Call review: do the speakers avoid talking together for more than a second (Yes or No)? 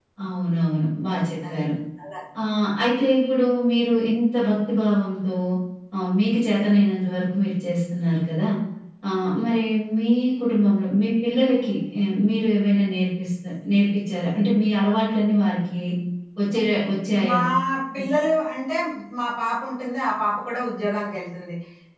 Yes